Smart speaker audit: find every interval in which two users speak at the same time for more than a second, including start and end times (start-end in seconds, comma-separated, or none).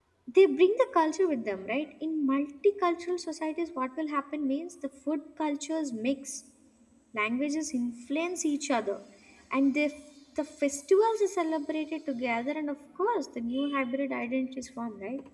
none